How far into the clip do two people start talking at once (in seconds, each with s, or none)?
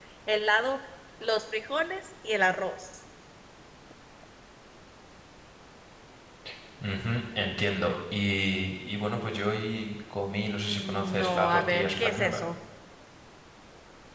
10.7 s